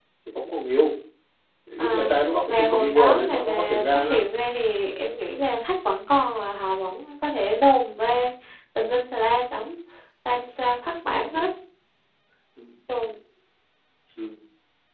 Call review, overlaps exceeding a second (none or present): present